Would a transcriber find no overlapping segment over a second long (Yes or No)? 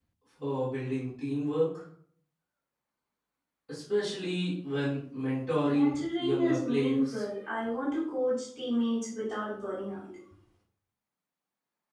No